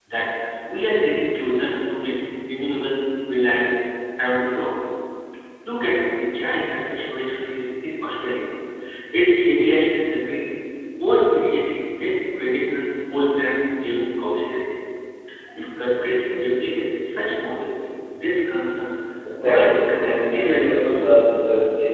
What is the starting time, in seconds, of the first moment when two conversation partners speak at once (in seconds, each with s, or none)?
19.4 s